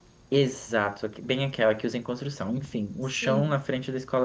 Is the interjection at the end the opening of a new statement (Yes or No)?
No